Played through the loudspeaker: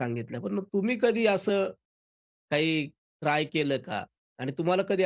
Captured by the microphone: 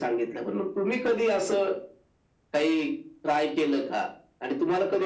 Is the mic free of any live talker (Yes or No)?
Yes